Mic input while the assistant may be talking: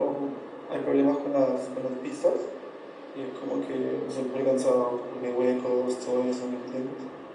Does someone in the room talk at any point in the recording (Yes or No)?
No